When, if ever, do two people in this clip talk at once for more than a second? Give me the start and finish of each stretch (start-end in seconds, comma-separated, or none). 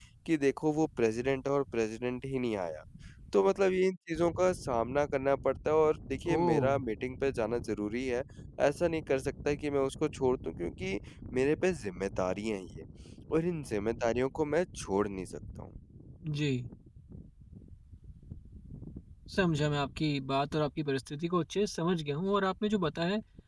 none